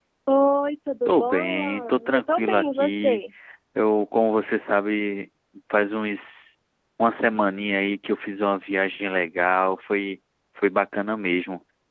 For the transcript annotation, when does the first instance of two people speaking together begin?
1 s

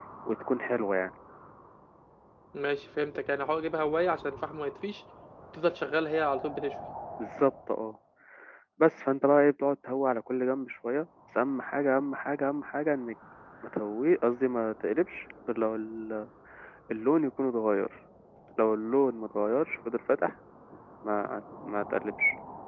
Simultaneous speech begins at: none

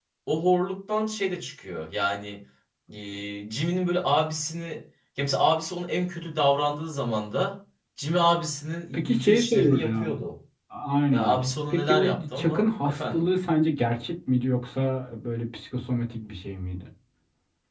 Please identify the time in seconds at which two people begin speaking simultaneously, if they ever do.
9 s

